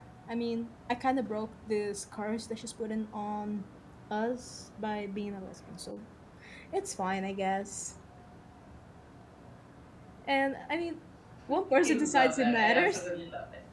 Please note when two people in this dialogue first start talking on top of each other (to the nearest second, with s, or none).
12 s